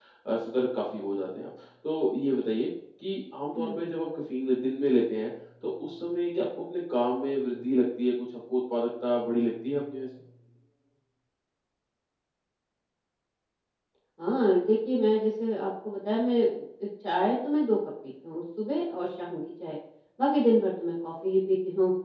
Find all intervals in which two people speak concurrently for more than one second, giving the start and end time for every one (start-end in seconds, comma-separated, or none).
none